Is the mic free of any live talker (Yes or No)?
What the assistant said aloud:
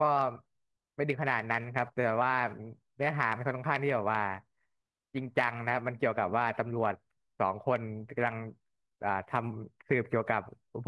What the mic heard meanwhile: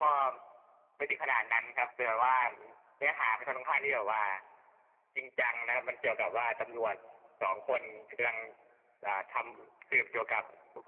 Yes